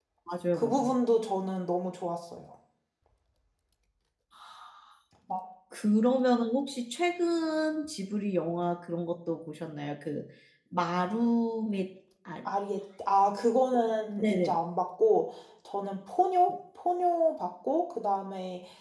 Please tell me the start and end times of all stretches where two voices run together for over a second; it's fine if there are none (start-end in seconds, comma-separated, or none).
none